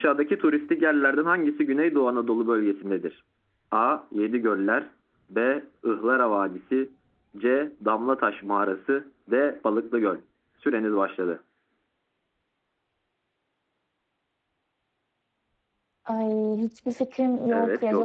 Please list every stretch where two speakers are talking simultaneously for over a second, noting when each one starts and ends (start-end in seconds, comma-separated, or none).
none